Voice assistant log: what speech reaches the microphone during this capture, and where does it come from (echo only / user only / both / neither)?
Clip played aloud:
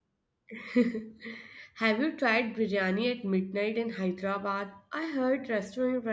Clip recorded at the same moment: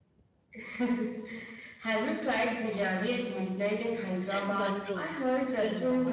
both